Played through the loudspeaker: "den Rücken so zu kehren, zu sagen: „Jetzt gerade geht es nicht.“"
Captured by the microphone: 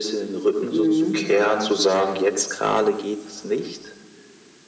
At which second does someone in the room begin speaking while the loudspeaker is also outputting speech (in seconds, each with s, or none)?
0.7 s